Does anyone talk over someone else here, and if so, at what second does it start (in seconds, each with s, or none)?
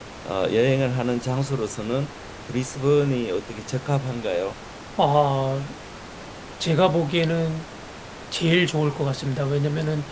none